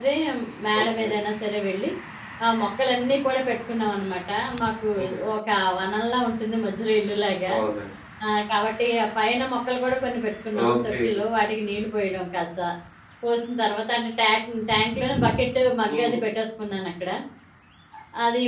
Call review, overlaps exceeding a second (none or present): none